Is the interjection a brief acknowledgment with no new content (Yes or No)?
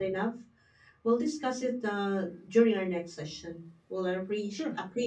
Yes